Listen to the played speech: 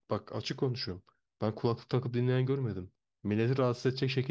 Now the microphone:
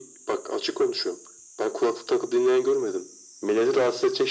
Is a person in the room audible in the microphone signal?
No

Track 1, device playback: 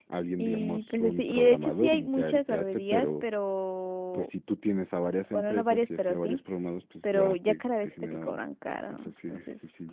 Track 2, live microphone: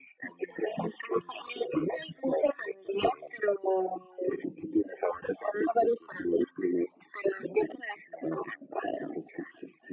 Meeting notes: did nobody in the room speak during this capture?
Yes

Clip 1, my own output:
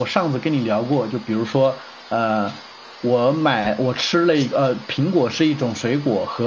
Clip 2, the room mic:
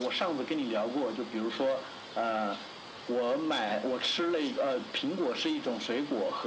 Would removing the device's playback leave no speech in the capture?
Yes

